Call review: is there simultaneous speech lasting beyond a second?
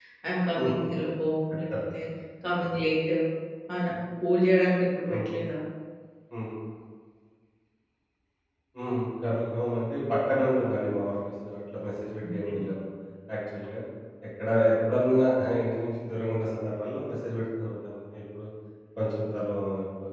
No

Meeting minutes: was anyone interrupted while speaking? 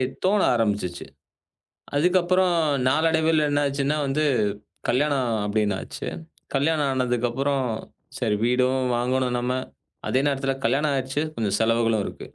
No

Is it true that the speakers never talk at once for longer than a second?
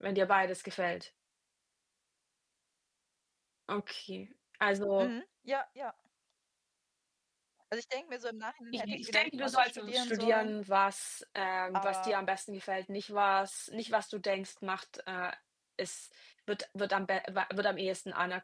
No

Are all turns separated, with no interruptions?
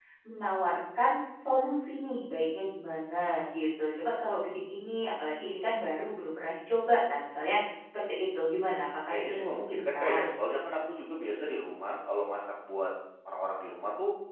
No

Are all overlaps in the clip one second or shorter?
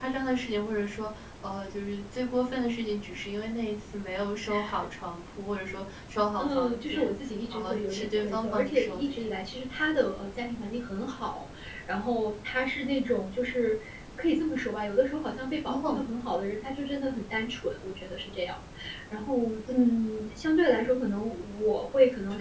No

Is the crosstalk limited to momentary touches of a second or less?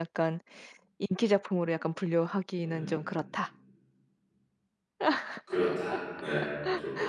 Yes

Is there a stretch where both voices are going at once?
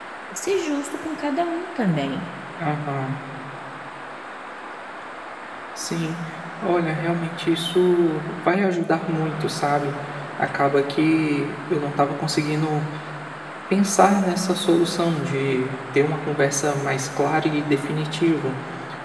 No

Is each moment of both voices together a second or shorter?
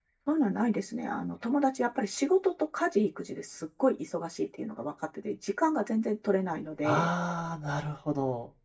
Yes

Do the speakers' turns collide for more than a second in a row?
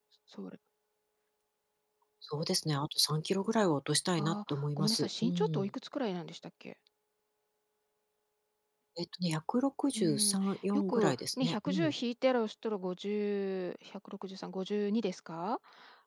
Yes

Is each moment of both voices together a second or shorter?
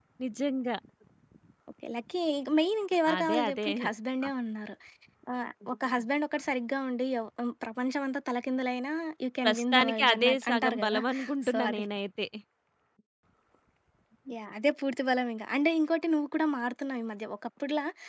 No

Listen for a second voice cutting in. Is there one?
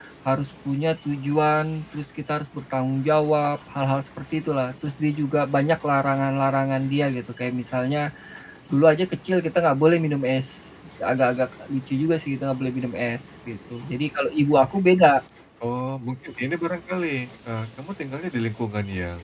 No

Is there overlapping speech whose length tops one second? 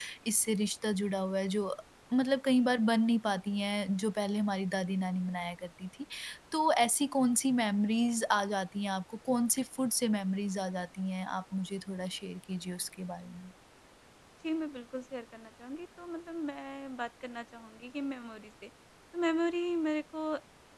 No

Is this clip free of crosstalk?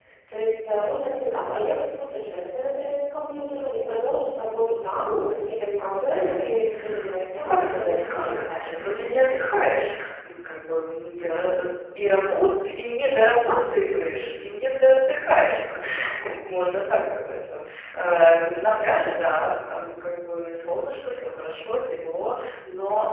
No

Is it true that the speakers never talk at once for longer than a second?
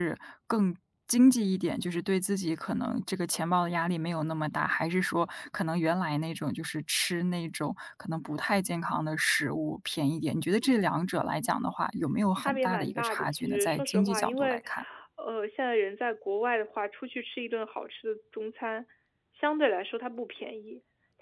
No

